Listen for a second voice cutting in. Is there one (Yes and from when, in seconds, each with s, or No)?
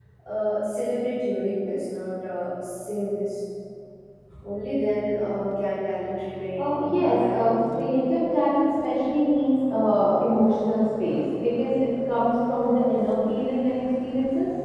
Yes, from 6.6 s